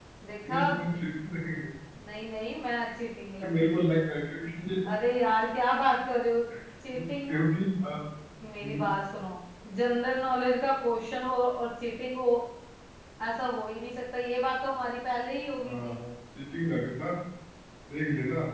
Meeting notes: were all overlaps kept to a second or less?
Yes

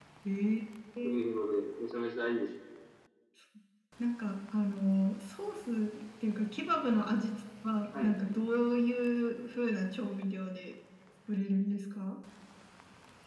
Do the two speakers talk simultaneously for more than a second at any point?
No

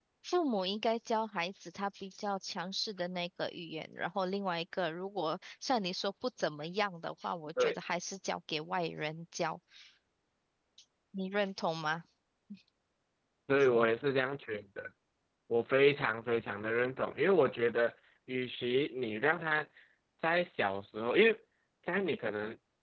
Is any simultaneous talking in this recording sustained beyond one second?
No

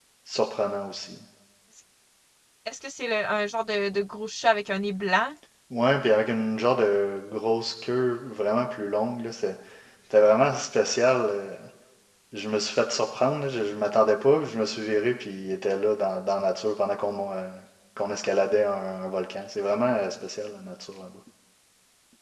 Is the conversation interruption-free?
Yes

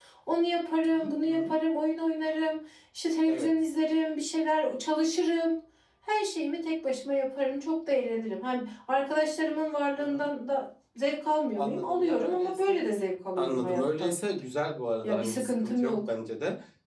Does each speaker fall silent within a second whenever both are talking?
No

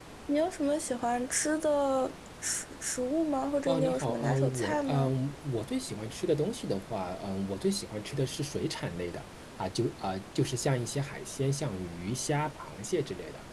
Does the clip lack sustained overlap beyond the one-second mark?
No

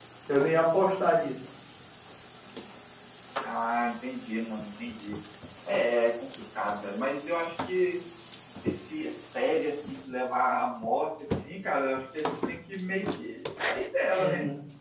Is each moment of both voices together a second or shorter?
Yes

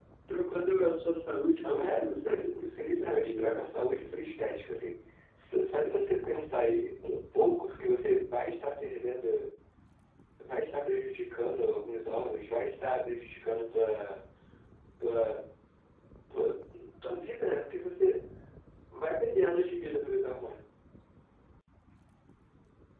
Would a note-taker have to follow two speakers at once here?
Yes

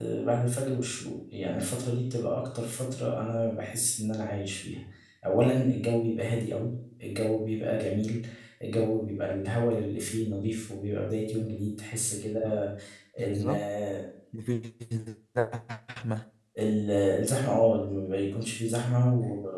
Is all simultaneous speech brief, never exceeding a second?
Yes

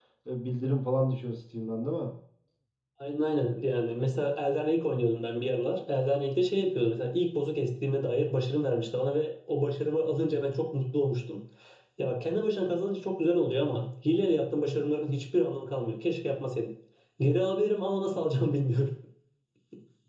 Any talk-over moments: No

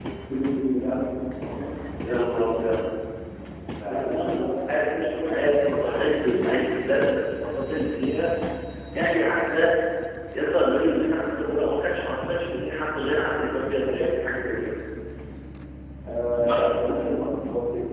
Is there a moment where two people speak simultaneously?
Yes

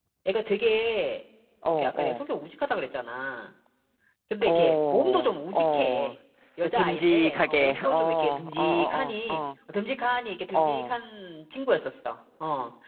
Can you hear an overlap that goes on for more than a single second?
Yes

